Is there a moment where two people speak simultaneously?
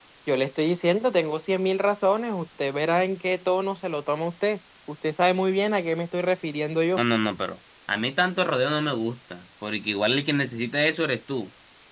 No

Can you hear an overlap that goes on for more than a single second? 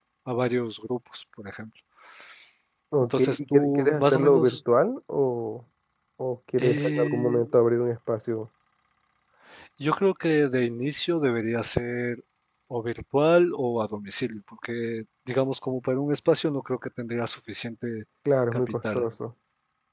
Yes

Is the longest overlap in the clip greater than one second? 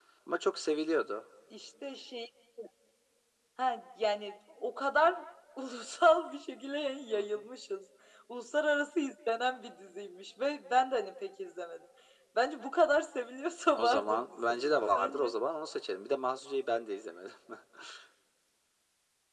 Yes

